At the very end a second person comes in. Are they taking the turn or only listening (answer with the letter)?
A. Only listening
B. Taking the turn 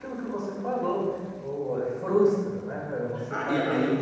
B